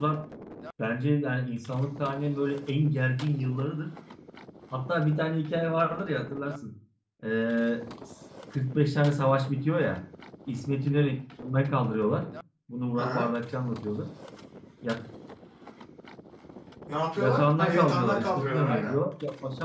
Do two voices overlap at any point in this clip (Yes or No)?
Yes